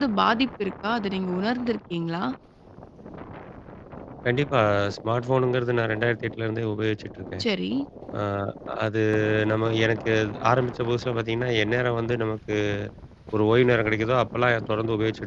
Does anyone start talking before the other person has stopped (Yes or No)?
No